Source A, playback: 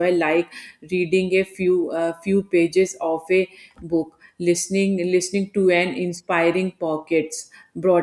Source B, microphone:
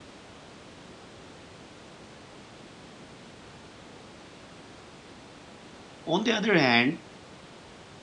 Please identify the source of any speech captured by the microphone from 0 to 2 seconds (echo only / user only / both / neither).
neither